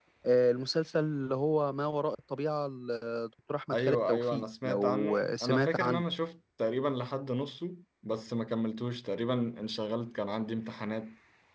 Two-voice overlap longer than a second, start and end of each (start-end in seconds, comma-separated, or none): 3.7-6.0